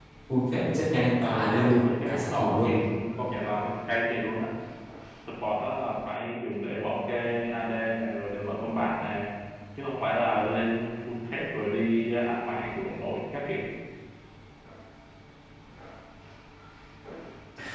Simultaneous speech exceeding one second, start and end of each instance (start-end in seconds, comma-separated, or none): 1.2-2.7